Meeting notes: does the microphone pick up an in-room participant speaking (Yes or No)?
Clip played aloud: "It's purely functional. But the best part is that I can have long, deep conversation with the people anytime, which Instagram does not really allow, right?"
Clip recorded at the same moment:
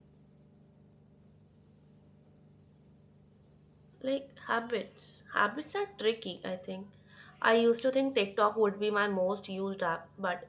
Yes